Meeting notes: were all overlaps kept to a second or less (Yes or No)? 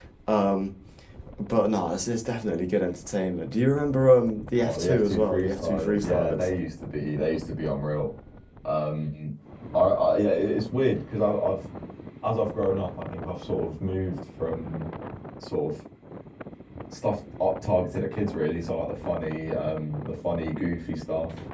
No